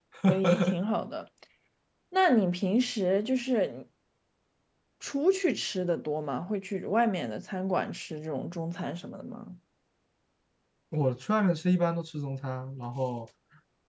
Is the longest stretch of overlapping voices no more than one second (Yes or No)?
Yes